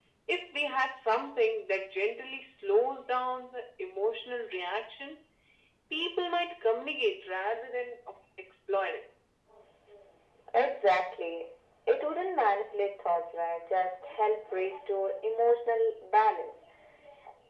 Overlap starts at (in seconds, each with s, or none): none